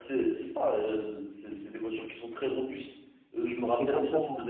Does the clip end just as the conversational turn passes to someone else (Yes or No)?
No